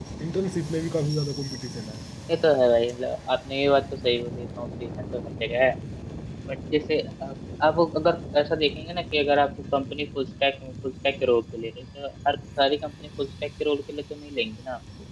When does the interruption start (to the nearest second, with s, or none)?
none